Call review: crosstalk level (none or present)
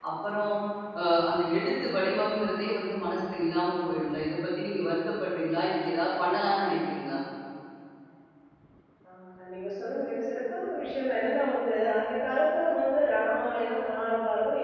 none